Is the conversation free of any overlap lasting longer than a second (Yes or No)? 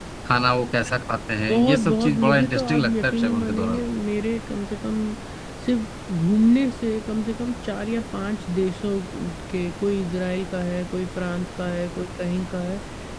No